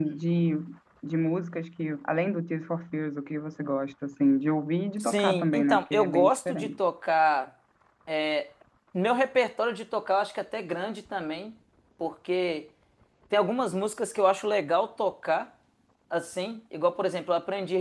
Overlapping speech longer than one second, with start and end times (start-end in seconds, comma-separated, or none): 5.0-6.7